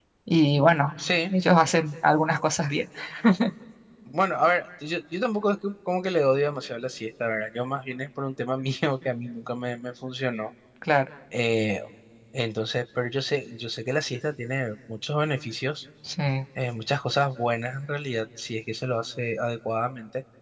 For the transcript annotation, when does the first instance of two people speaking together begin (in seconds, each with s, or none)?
none